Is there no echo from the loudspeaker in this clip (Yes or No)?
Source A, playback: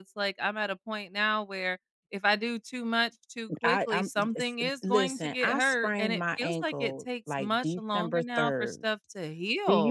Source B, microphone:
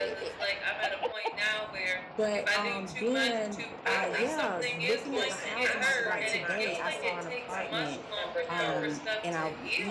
No